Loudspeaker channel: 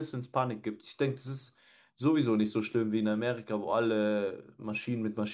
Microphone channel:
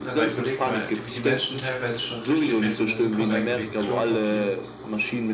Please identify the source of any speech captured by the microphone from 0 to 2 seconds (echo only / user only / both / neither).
both